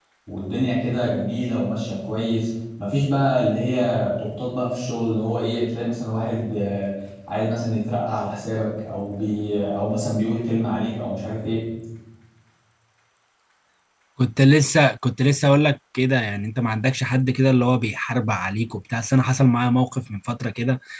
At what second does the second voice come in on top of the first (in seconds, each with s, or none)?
none